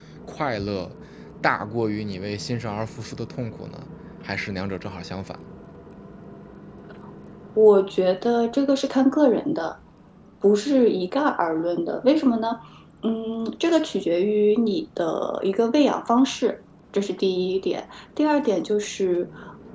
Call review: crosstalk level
none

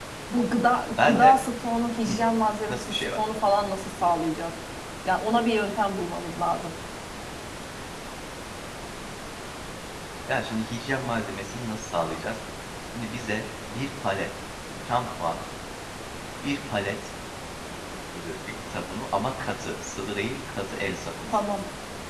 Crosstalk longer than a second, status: none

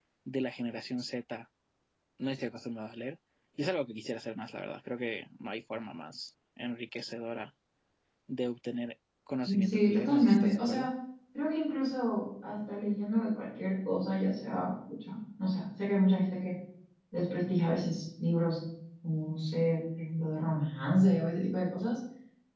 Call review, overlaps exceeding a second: present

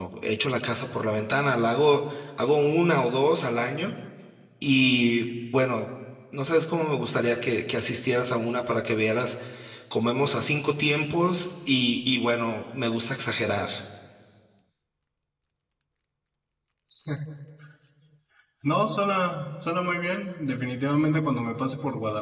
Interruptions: none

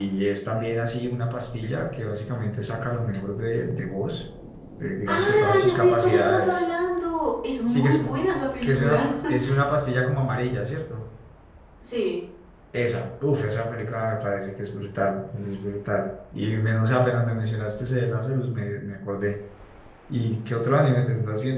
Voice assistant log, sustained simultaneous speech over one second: present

